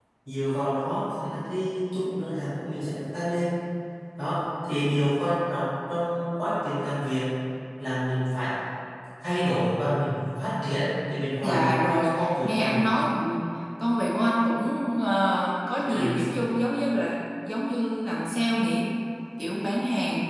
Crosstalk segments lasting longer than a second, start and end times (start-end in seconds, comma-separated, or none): 11.4-12.8